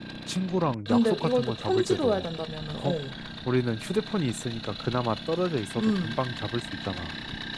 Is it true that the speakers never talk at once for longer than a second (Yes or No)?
No